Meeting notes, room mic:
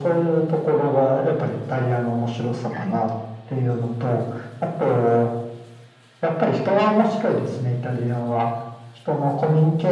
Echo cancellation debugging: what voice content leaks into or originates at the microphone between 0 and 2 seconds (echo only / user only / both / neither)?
echo only